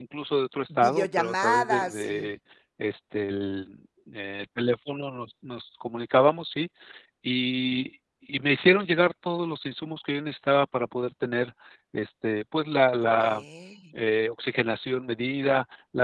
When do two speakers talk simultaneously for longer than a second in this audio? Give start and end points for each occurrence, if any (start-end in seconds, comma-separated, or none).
0.8-2.3